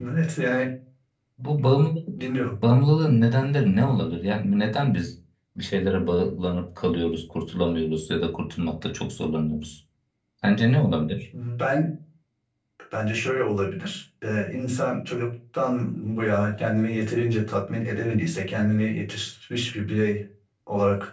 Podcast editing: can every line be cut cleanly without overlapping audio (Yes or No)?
Yes